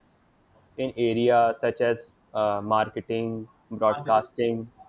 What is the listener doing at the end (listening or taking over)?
listening